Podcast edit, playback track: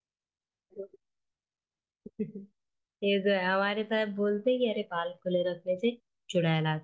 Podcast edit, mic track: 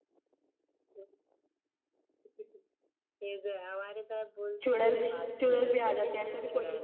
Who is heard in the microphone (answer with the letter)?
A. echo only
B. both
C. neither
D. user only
B